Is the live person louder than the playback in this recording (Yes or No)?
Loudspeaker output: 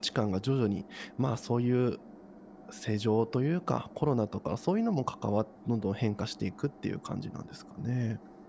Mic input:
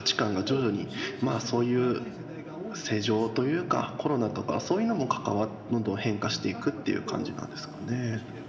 No